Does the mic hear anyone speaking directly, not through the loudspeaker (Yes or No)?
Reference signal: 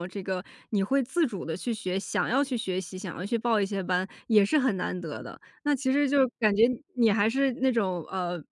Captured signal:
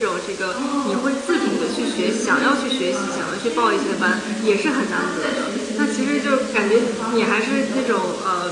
Yes